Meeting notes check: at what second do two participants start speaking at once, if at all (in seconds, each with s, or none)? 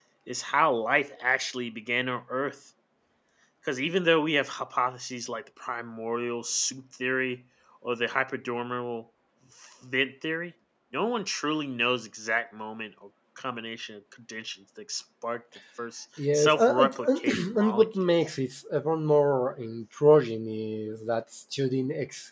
16.2 s